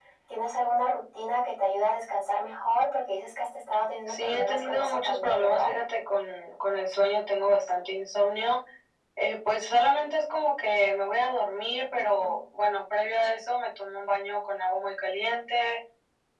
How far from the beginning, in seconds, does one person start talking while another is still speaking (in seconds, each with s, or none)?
4.1 s